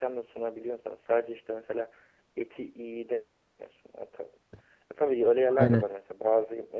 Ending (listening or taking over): listening